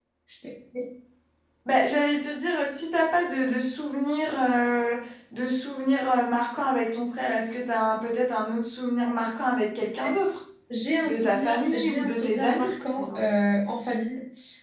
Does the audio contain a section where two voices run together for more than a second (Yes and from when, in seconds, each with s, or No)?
Yes, from 11.0 s